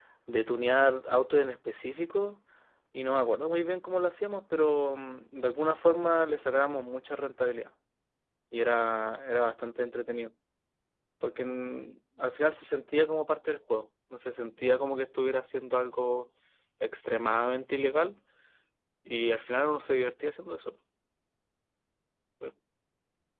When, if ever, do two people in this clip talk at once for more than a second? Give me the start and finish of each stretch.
none

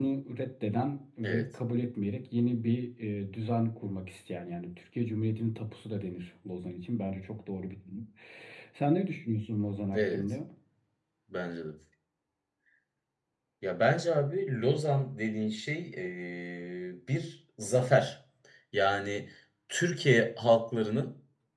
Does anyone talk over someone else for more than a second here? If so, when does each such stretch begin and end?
none

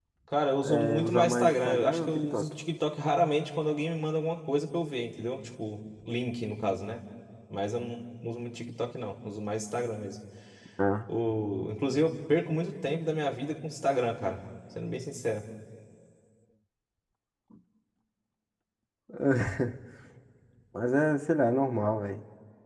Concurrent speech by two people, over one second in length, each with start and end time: 0.6-2.4

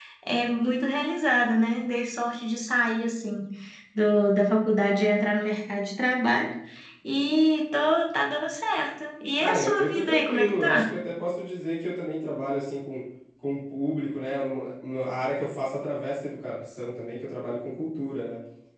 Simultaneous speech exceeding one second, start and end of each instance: 9.4-10.8

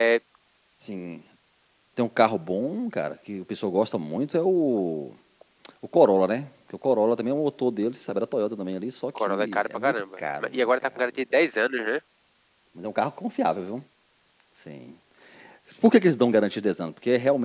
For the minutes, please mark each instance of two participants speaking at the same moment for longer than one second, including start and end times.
9.2-11.4

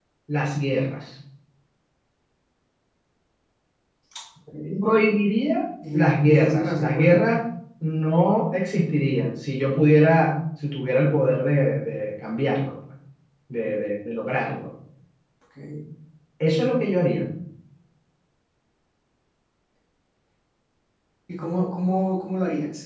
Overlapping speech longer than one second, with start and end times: 5.9-7.2

